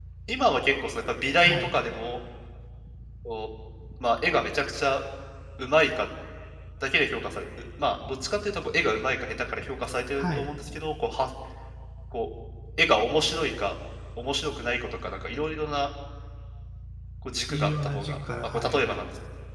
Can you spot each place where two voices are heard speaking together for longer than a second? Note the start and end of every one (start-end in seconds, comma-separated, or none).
17.5-19.1